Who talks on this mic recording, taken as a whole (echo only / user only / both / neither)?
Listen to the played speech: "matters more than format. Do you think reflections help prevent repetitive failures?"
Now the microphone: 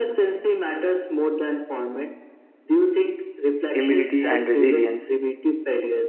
both